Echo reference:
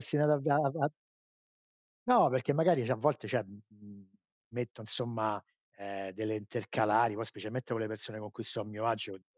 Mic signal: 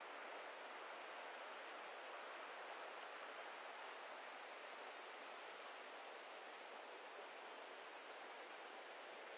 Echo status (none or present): none